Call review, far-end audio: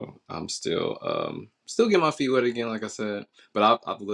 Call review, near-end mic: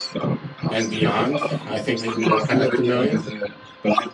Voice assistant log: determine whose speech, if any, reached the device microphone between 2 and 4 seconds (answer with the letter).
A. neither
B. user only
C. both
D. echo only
C